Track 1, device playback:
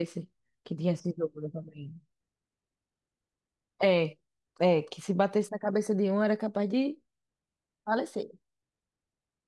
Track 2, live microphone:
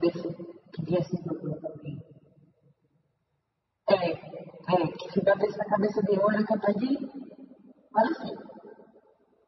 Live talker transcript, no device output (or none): none